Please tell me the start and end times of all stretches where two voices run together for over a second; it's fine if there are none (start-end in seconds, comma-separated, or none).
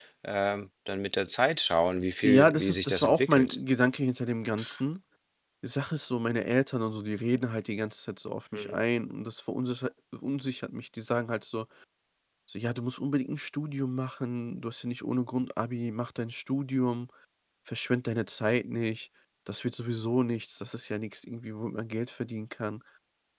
2.2-3.5